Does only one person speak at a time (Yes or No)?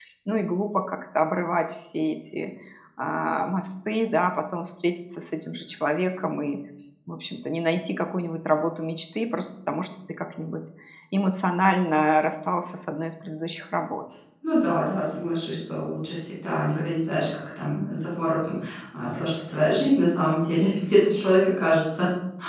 Yes